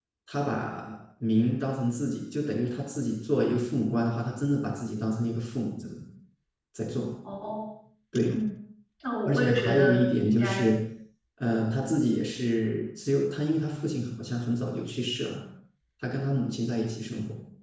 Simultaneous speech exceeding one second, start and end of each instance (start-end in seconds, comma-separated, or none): 9.2-10.7